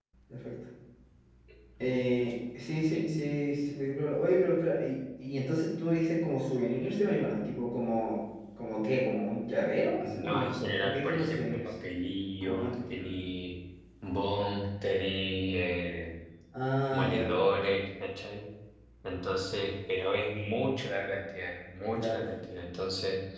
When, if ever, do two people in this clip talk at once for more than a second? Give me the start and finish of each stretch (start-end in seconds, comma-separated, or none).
10.1-11.7